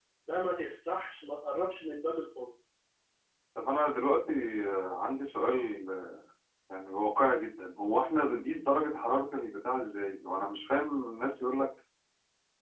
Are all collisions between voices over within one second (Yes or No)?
Yes